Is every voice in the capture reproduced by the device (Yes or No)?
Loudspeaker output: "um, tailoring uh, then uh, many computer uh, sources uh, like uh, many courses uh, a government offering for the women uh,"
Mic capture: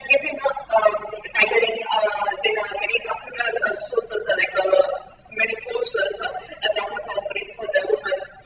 Yes